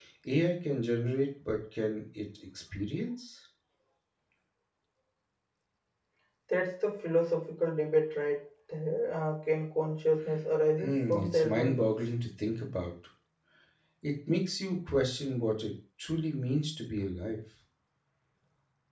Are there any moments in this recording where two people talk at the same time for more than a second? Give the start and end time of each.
10.8-12.0

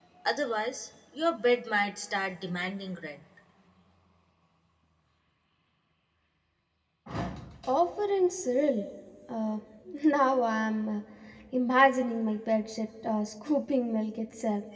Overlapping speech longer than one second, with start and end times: none

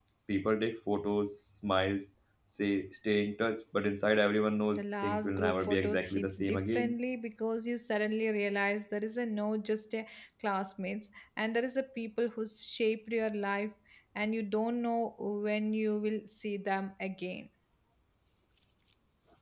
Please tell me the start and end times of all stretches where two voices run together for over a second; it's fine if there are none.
4.8-7.0

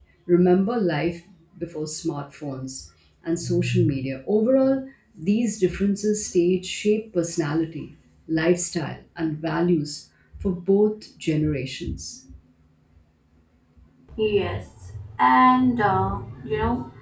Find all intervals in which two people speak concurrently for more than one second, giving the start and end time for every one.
none

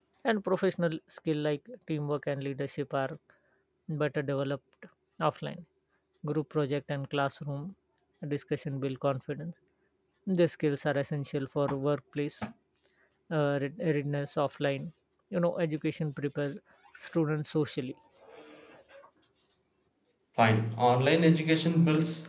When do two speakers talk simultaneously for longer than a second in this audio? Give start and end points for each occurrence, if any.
none

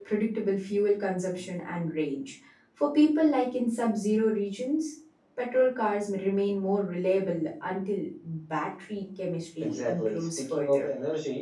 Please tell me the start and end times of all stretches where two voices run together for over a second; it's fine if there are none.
9.6-10.9

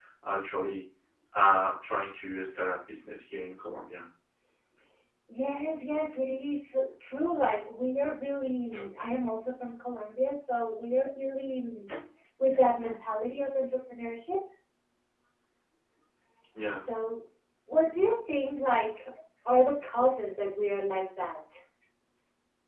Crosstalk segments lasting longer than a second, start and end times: none

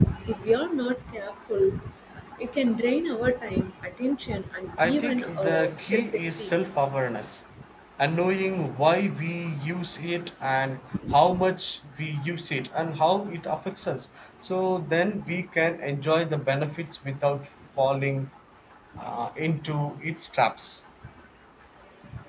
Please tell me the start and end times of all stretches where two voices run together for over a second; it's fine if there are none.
4.8-6.5

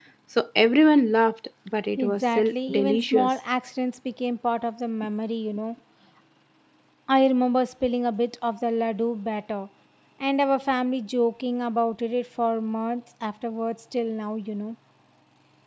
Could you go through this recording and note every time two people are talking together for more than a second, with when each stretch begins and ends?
2.0-3.3

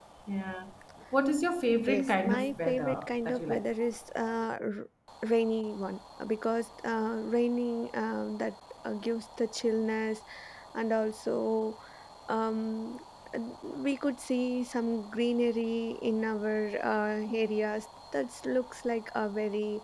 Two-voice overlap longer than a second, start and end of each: 1.9-3.6

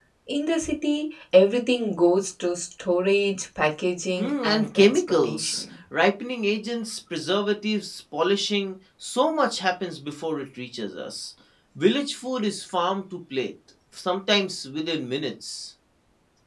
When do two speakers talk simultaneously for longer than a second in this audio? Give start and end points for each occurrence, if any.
4.2-5.6

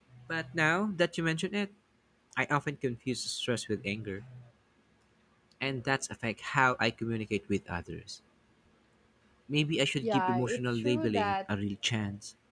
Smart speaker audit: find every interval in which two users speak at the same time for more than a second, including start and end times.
10.0-11.3

